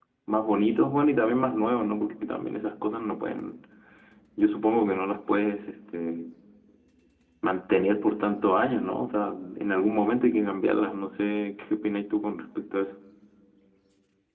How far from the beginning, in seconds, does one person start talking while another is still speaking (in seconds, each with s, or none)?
none